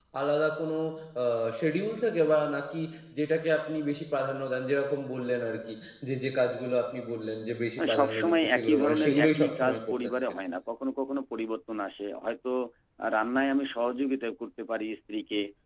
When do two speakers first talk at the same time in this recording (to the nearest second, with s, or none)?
8 s